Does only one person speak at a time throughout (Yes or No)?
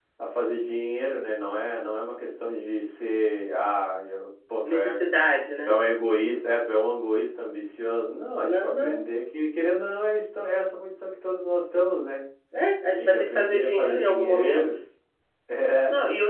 No